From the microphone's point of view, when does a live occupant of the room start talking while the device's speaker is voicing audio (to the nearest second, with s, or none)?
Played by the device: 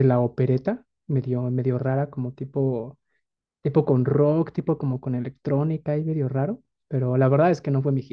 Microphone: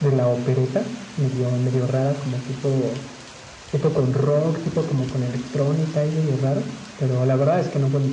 none